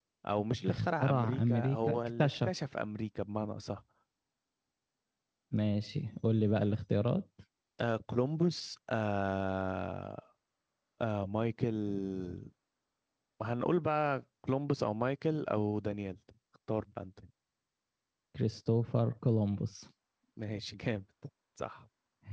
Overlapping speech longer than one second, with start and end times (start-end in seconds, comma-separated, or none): 0.7-2.5